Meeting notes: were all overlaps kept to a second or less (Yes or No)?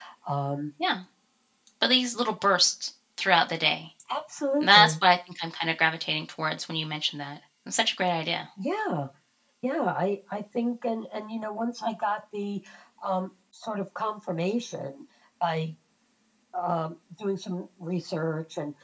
Yes